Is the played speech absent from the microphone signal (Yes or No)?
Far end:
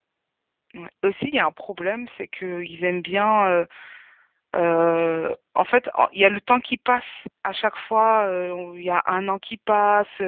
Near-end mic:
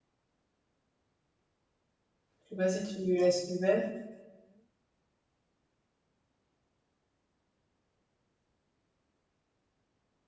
Yes